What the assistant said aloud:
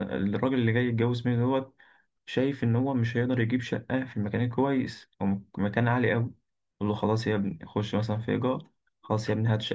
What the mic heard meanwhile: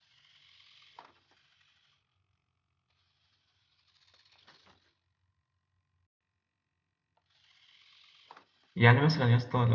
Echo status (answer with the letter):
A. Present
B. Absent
B